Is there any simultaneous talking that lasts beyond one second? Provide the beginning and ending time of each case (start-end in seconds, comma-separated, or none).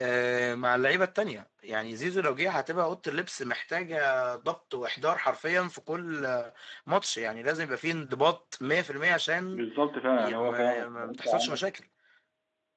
10.2-11.6